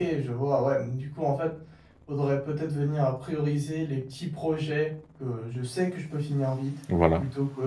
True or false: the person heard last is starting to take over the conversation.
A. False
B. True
A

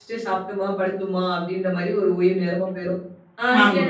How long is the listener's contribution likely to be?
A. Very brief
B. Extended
A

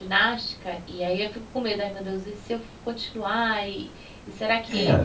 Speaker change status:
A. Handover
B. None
A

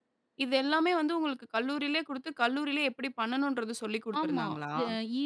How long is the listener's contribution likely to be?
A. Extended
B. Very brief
A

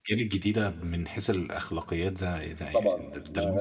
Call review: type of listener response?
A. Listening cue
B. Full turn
B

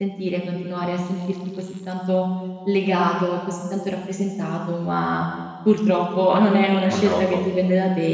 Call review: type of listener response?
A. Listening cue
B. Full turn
A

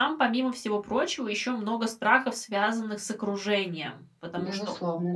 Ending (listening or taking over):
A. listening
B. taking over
A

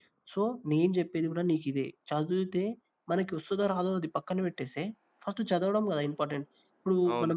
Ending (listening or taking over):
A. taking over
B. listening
A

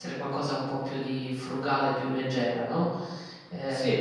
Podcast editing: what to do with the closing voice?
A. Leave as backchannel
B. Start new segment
A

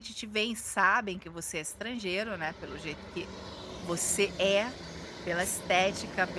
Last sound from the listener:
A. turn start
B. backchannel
B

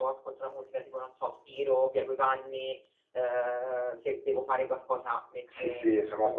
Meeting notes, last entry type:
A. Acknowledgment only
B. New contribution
B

